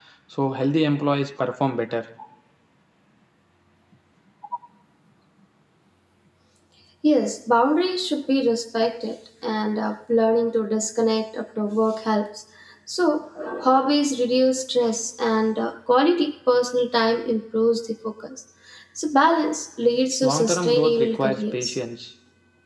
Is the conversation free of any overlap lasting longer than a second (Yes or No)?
No